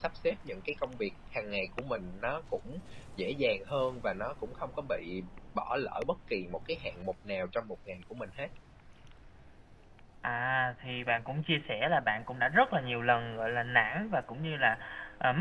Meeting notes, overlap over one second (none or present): none